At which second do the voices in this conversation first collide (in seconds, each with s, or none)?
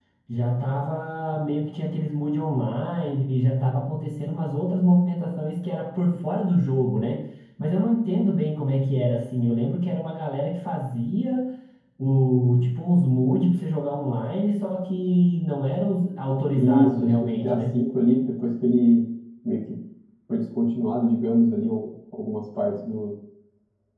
16.5 s